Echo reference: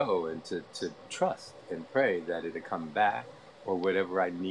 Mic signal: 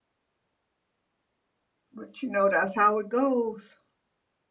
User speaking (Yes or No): Yes